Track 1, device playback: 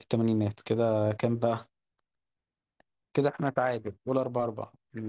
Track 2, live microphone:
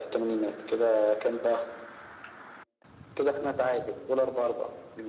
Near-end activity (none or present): none